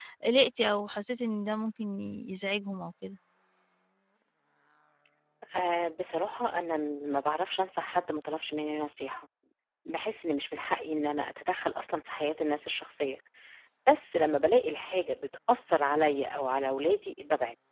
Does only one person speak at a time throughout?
Yes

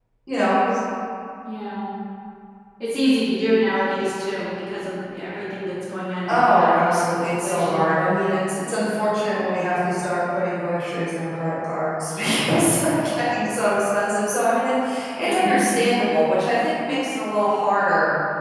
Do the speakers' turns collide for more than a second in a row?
Yes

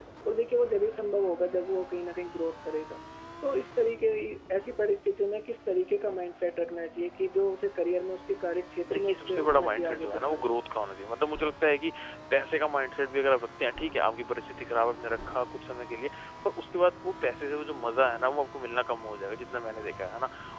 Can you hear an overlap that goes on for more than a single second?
Yes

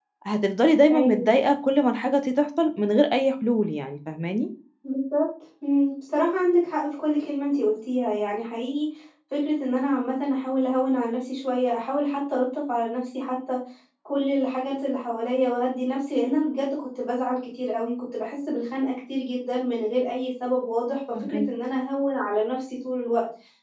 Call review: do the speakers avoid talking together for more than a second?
Yes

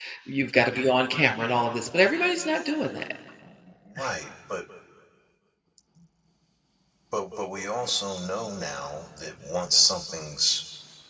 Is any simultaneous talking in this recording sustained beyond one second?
No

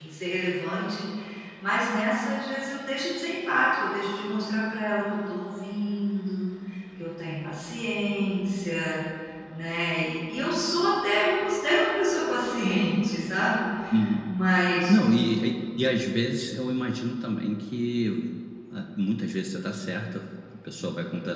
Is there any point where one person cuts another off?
No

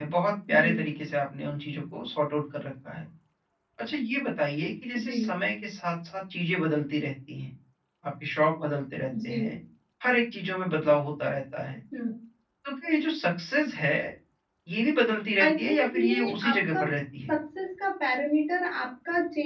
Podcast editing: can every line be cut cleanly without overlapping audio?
No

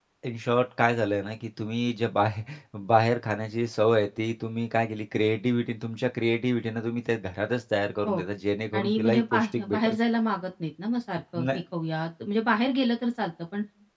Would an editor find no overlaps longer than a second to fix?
No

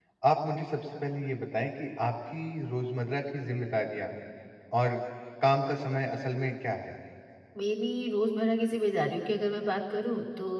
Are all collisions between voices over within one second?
Yes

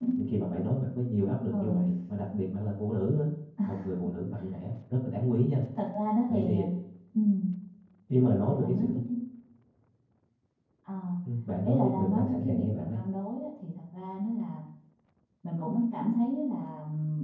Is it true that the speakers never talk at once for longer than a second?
No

